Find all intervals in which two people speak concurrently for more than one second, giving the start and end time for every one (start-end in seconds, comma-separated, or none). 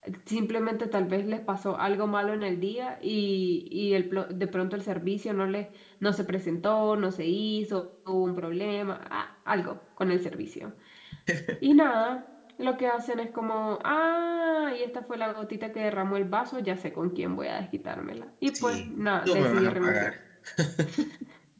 18.5-20.1